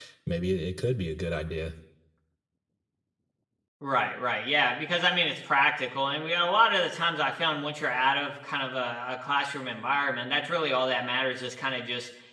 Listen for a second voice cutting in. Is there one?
No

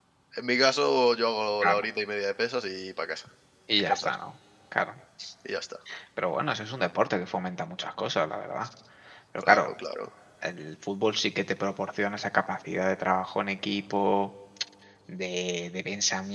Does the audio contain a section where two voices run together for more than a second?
No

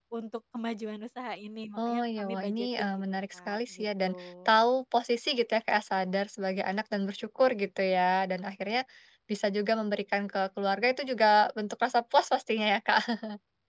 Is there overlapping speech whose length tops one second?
Yes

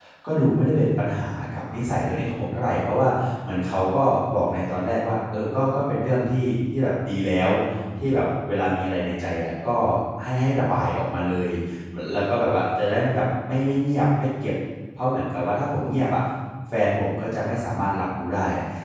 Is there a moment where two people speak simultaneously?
No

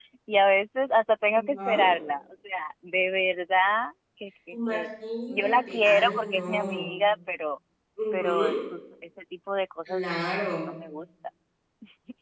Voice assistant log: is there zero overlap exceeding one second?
No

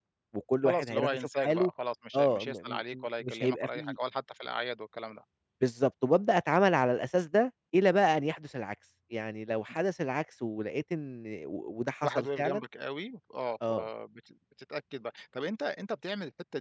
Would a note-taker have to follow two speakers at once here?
Yes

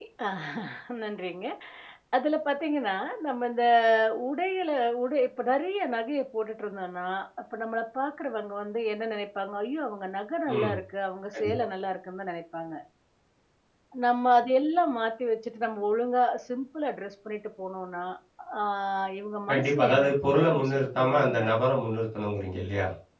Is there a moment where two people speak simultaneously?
Yes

